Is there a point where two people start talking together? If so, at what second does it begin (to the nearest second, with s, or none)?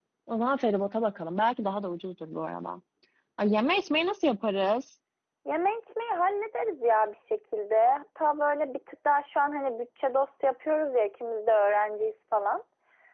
none